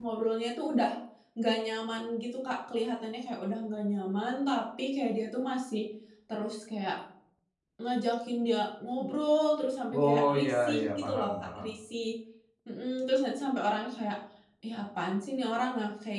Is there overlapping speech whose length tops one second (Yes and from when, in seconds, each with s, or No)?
Yes, from 9.9 s